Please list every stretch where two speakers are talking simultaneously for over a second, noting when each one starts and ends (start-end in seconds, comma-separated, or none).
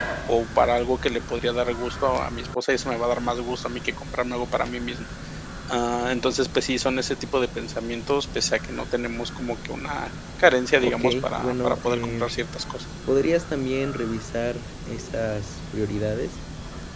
10.8-12.3